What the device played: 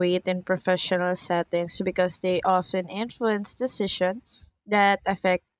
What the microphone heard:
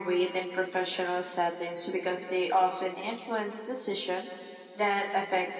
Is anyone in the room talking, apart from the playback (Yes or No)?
No